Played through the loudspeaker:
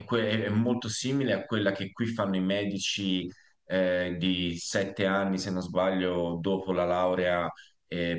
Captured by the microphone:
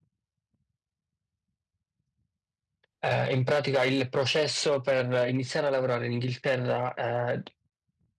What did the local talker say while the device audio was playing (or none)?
Eh, in pratica il processo per iniziare a lavorare in Inghilterra, eh,